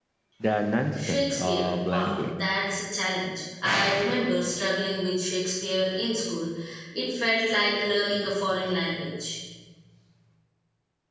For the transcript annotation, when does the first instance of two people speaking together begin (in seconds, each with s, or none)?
1.1 s